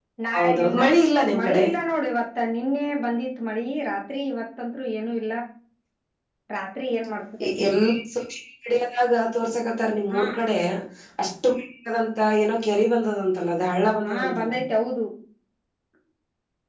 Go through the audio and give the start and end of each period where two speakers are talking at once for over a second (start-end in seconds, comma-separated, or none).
none